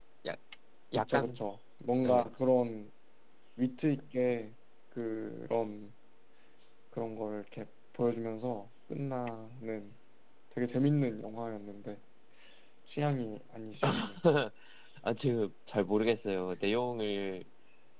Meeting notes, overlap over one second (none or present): none